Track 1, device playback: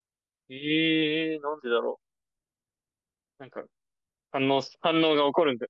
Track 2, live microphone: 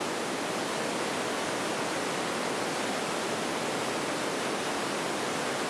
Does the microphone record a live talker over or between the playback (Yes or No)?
No